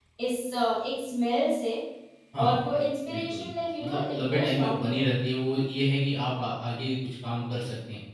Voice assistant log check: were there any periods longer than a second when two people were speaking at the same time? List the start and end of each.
3.8-5.1

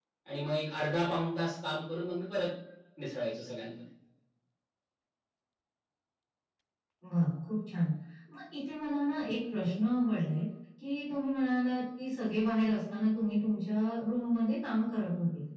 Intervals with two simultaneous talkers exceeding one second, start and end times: none

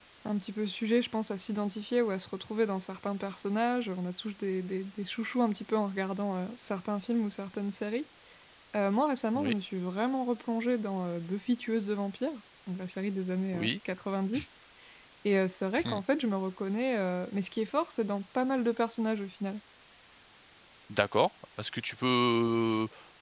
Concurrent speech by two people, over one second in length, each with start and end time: none

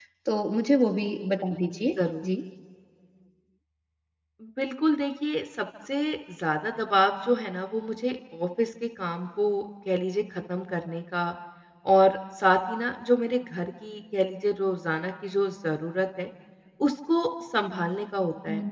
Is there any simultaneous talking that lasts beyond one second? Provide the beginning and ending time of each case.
none

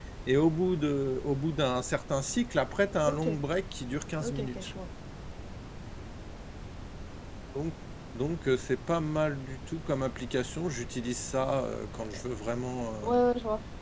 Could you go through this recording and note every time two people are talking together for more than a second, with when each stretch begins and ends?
none

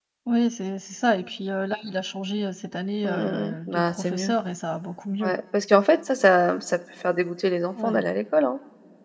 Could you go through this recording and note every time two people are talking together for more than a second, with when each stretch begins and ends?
3.0-4.3

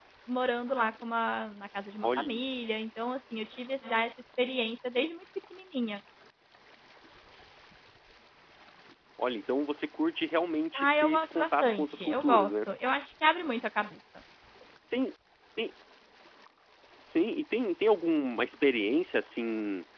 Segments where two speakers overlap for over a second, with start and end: 10.8-12.5

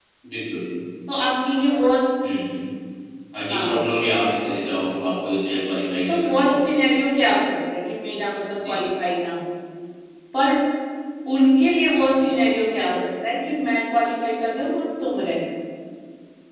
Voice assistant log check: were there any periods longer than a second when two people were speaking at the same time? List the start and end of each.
none

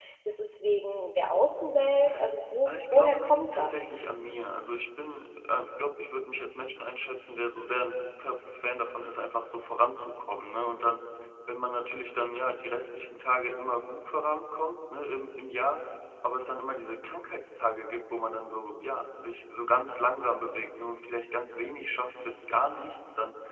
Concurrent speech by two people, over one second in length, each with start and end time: 2.7-3.9

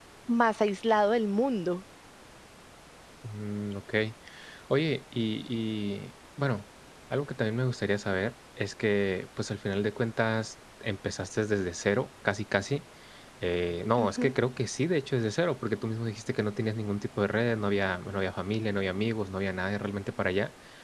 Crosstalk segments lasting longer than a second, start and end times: none

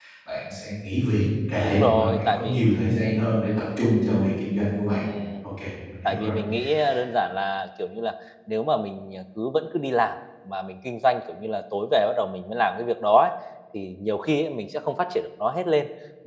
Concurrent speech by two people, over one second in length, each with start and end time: 1.6-3.3

